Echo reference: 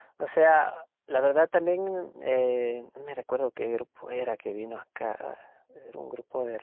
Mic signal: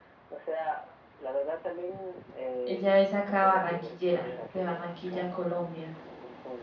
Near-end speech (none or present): present